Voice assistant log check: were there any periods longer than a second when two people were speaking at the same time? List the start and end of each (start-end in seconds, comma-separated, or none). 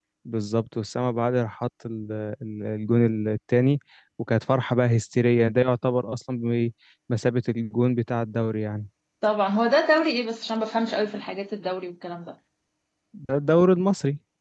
none